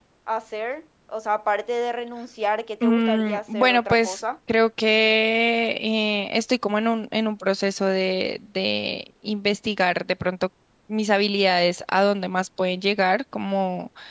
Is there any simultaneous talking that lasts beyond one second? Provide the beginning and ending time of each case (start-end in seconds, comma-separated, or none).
2.8-4.2